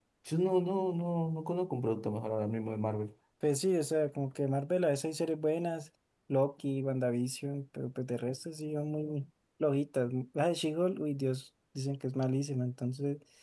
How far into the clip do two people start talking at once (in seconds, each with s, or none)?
none